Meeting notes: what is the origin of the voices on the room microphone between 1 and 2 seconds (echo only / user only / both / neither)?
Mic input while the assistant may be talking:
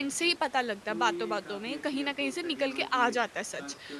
both